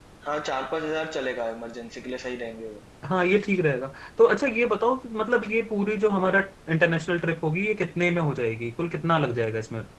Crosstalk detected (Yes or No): No